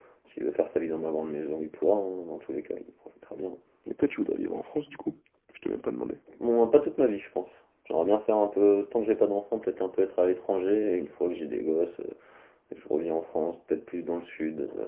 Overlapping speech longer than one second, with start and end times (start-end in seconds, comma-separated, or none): none